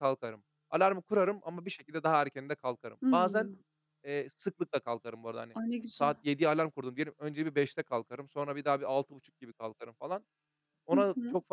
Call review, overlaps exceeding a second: none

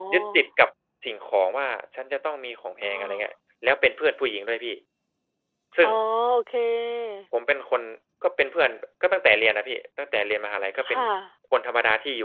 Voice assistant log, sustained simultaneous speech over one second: none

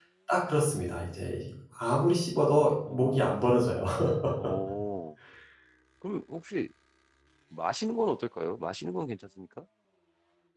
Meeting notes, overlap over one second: none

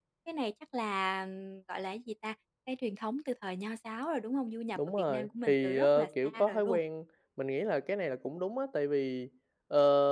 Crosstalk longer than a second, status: present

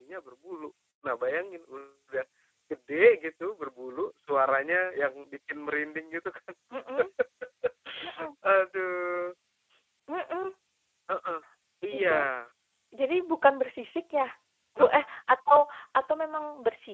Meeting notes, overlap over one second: none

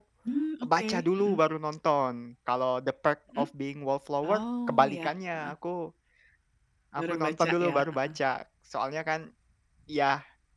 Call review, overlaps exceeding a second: present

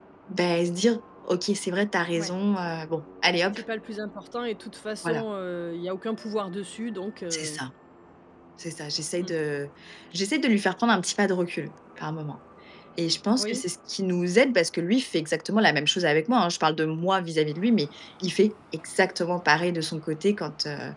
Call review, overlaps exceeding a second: none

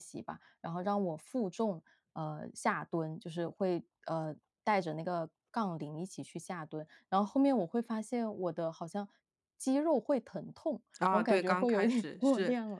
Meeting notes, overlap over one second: present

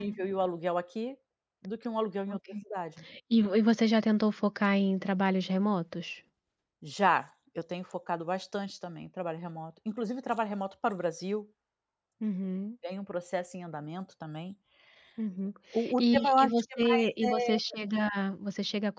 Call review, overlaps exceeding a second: present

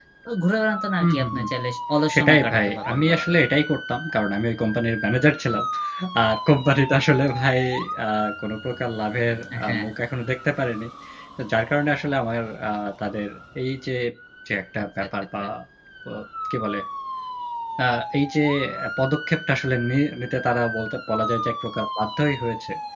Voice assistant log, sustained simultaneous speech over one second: present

